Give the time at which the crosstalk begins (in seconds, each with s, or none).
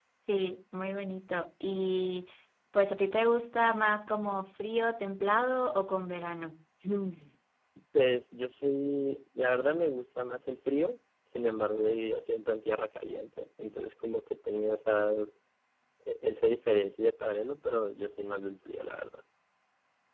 none